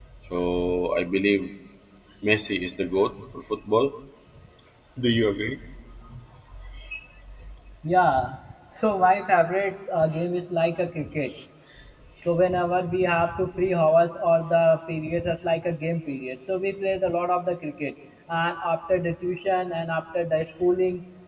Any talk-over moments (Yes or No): No